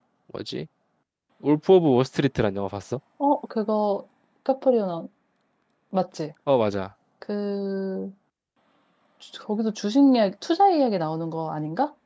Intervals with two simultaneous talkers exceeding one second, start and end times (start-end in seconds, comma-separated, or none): none